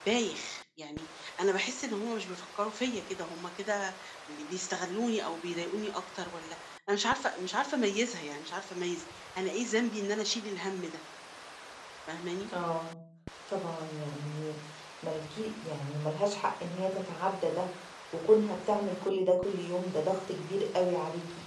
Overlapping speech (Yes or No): No